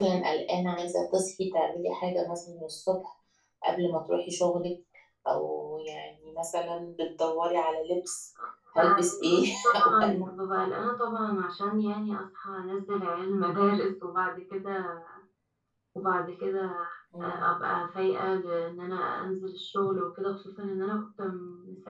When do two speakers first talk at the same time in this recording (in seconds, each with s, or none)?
8.8 s